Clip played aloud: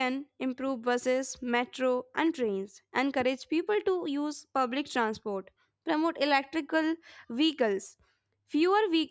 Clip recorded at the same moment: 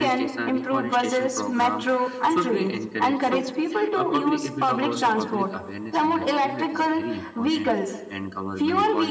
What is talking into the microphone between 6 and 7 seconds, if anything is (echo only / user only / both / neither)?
both